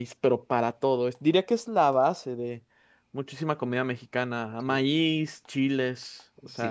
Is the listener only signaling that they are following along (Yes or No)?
No